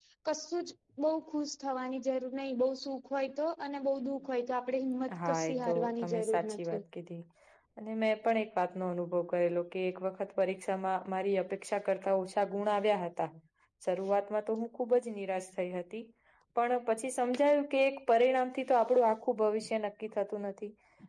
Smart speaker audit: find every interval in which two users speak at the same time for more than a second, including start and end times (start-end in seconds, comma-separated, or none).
5.2-6.8